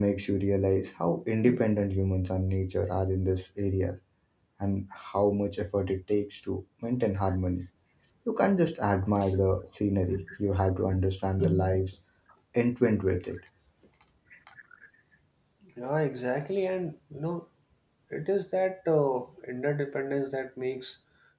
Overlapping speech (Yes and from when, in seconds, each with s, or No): No